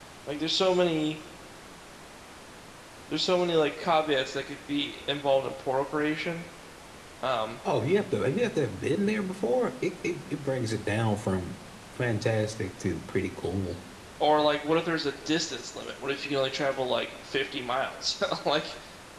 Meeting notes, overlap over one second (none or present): none